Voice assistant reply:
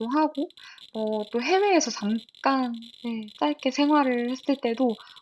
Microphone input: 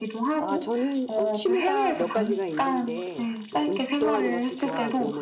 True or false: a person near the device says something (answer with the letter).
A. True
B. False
A